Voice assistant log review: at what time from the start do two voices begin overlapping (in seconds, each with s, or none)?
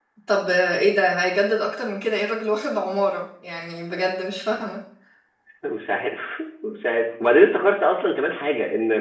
none